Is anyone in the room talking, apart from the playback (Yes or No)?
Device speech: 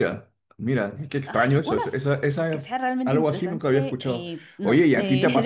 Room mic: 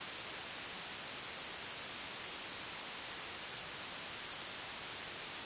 No